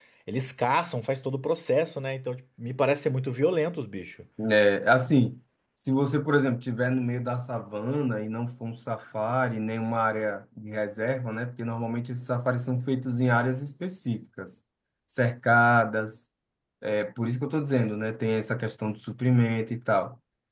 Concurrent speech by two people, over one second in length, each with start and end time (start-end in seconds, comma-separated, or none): none